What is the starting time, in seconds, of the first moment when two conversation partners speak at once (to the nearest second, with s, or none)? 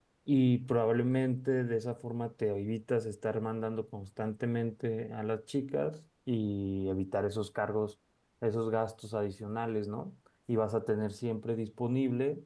none